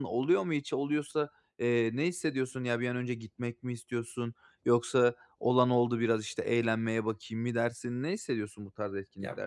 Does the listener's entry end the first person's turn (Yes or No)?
Yes